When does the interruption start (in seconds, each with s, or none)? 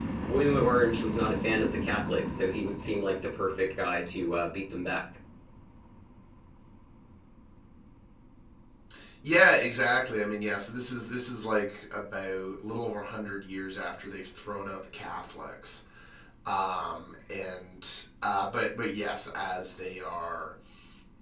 none